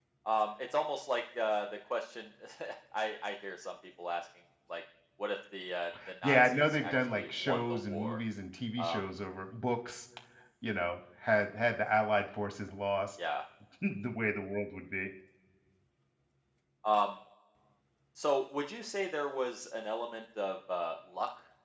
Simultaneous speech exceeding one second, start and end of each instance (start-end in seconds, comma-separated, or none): 6.2-8.2